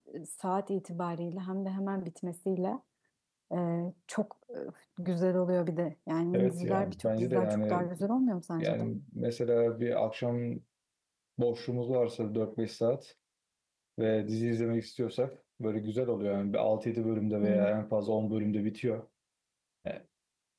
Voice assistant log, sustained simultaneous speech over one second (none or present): present